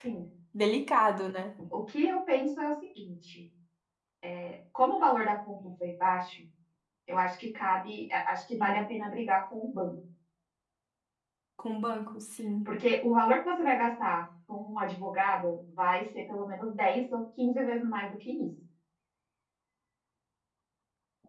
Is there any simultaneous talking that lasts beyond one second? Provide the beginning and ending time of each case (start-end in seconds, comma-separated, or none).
none